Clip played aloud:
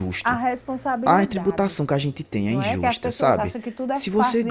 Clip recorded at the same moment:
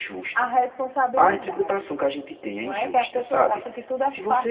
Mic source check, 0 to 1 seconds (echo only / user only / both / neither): echo only